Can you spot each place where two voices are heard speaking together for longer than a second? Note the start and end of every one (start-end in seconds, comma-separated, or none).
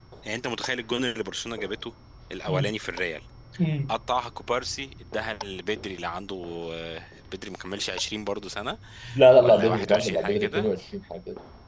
9.4-10.7